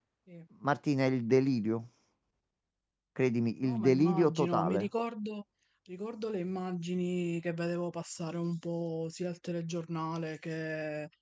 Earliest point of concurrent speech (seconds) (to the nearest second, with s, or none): 4 s